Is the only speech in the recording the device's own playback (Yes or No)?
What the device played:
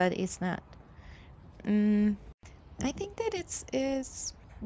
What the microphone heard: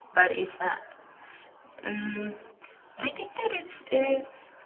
Yes